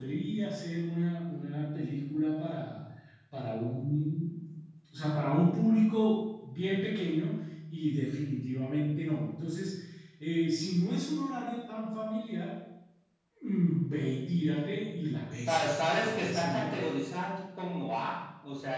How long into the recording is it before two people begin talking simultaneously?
15 s

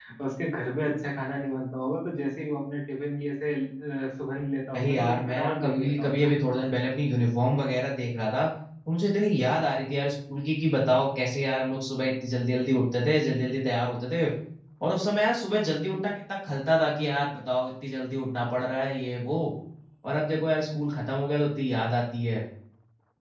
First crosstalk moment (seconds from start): 5 s

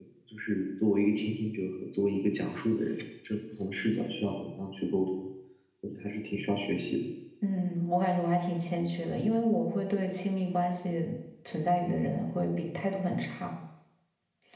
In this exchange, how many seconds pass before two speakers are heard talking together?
none

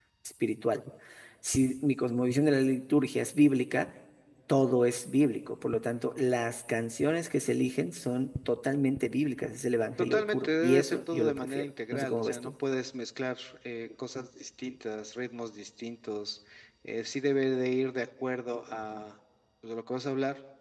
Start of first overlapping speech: 10 s

